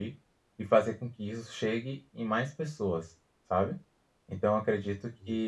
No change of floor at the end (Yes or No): Yes